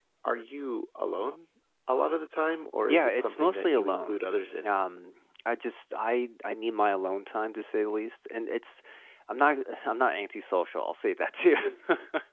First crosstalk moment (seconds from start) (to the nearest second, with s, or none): 3 s